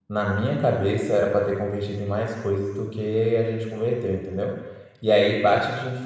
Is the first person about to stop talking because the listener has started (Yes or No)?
No